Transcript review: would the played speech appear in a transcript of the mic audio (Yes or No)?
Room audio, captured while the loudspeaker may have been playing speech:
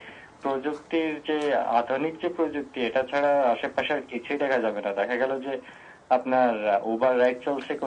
Yes